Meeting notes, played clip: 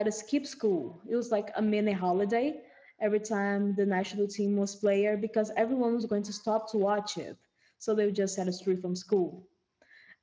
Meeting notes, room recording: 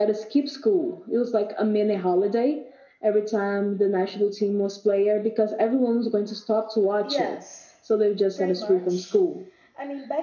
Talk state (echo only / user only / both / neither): both